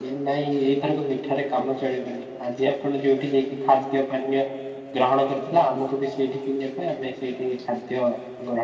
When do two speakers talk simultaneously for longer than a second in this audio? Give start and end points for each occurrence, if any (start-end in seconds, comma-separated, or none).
none